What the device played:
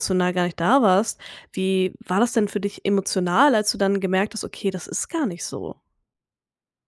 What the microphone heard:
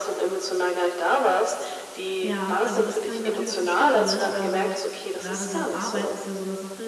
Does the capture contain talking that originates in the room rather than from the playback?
Yes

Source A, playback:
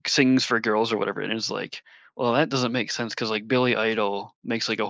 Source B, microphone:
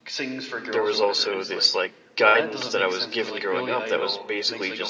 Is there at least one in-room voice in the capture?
Yes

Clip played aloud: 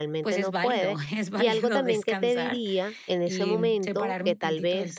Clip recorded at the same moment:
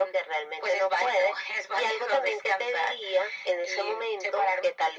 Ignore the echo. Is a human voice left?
No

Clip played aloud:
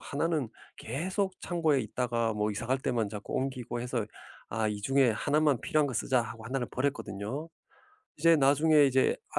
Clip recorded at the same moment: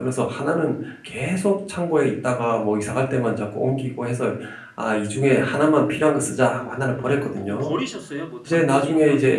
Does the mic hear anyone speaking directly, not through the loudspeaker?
Yes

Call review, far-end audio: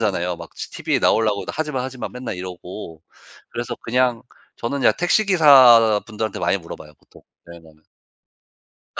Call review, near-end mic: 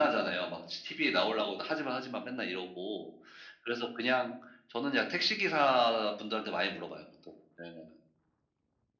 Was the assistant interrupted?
No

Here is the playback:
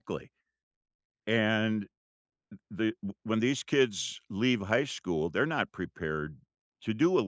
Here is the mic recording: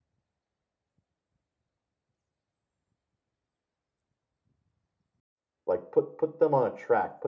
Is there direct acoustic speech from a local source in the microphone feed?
Yes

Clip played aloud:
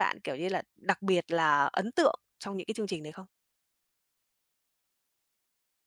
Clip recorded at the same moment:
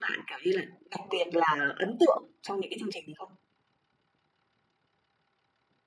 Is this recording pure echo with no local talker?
Yes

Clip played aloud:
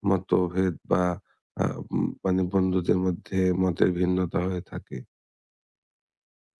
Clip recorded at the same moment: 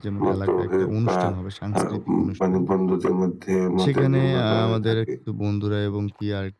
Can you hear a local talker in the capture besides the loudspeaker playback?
Yes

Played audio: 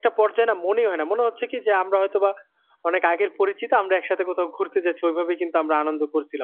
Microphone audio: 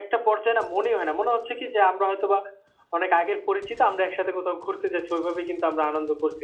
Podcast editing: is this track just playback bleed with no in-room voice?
Yes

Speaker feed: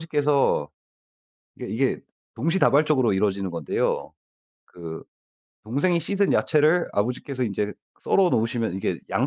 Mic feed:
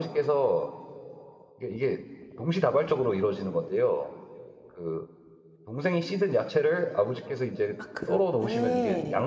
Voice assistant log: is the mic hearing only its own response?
No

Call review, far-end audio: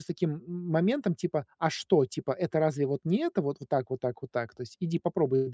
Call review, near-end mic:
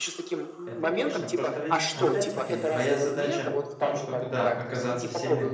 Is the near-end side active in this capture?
Yes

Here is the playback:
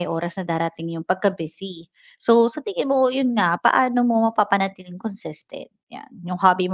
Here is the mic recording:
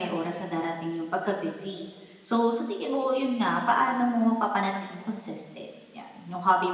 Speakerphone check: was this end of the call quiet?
Yes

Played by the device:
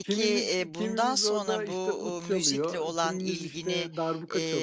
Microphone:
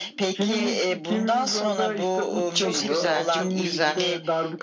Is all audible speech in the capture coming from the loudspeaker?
No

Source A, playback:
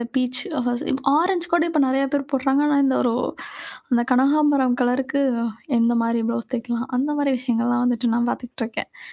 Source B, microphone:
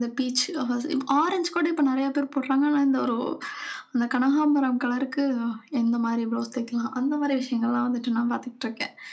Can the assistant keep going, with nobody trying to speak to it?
Yes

